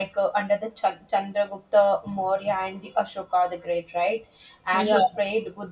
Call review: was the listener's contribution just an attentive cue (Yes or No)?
Yes